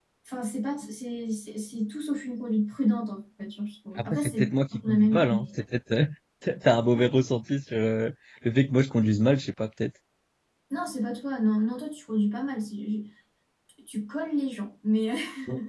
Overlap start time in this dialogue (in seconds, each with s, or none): 4.0 s